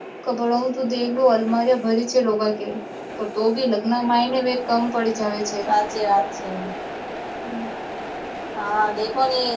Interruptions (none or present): none